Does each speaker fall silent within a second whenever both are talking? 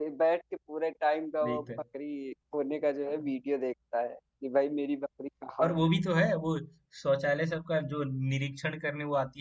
Yes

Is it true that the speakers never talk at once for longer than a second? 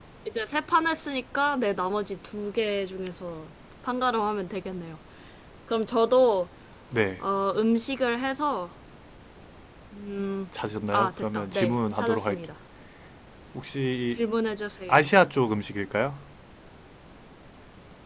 No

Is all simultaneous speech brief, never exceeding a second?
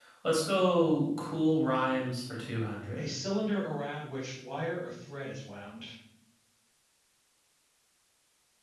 Yes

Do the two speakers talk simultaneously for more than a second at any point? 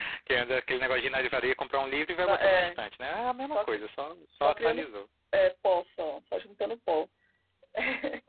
No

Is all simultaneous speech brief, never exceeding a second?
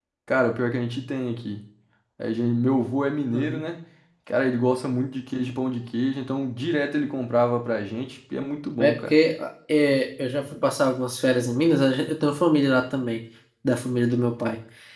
Yes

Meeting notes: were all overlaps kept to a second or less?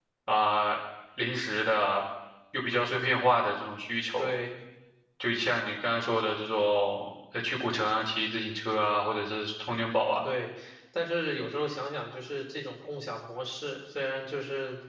Yes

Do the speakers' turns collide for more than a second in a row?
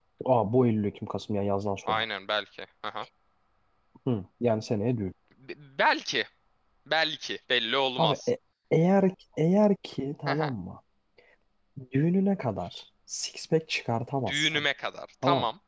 No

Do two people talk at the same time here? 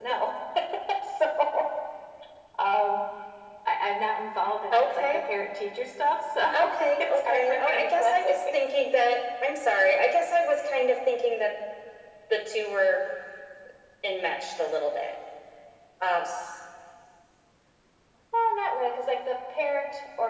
Yes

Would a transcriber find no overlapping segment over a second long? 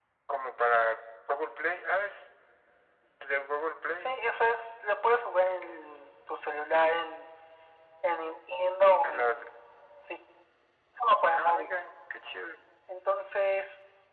Yes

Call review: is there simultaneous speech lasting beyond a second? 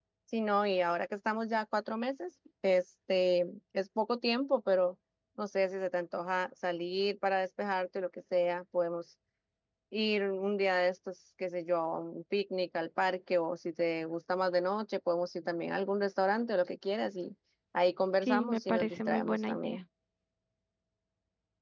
Yes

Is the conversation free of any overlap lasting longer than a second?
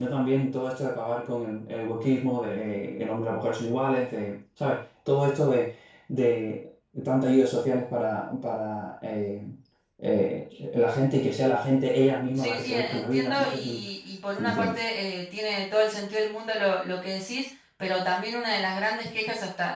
No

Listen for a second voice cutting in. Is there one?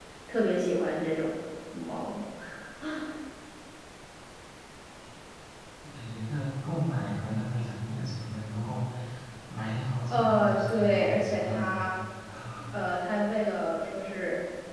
Yes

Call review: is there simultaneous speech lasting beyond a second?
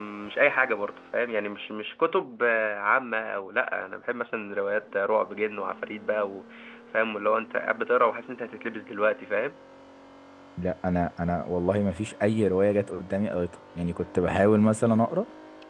No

